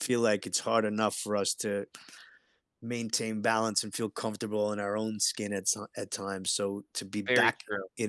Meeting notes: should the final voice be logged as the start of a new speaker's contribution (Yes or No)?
No